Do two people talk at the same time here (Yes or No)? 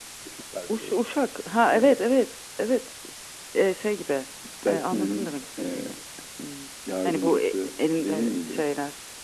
Yes